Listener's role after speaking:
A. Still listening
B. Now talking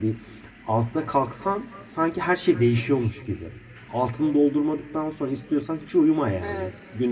A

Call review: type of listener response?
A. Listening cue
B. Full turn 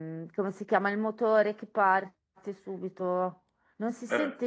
A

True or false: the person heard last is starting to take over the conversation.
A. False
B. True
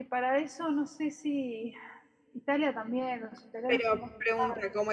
B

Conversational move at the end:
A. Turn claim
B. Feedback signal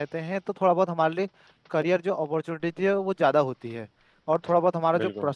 B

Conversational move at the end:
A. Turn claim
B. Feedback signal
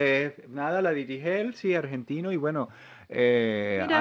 B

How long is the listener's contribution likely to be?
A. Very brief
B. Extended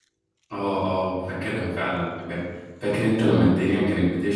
A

